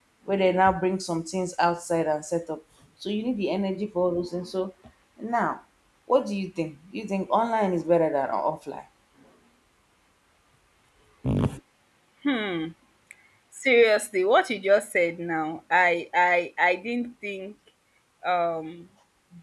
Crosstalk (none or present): none